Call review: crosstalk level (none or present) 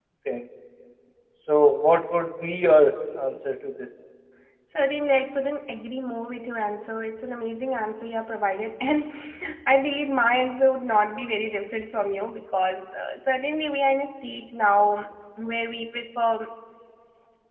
none